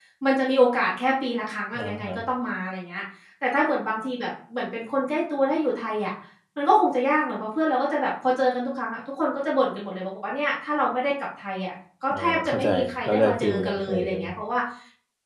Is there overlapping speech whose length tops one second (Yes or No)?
Yes